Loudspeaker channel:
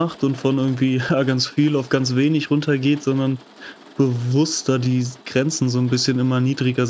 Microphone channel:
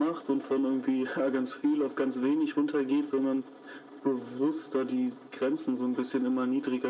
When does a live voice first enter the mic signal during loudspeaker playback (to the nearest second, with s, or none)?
none